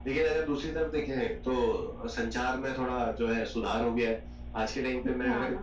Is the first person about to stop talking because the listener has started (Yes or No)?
No